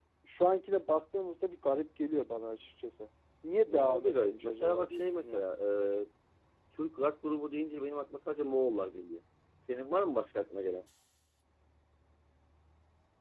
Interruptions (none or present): present